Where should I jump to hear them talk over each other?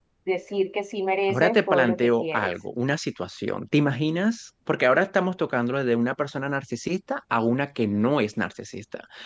1.3 s

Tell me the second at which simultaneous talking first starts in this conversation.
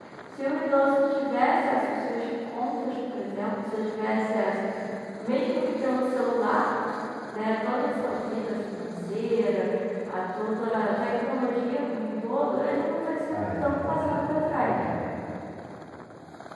13.3 s

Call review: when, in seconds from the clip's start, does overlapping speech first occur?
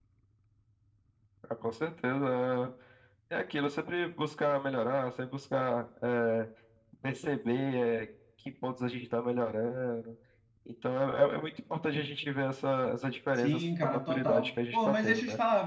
13.4 s

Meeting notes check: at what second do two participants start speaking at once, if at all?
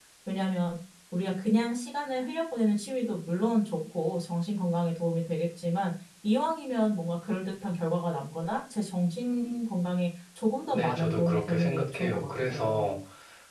10.7 s

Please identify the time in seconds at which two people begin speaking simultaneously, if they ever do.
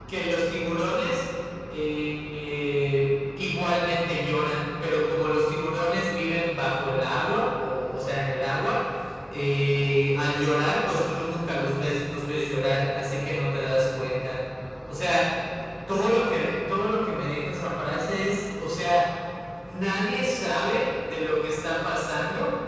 none

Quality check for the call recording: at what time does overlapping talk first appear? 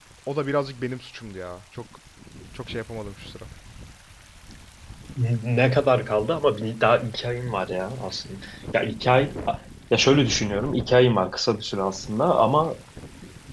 none

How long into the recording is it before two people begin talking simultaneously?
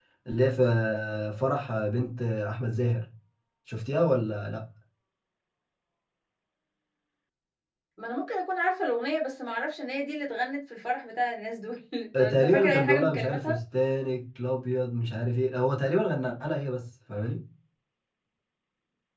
12.1 s

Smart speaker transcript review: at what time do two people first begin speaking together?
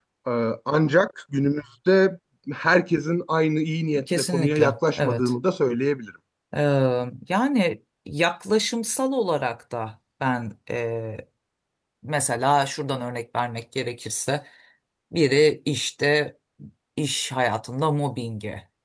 4.0 s

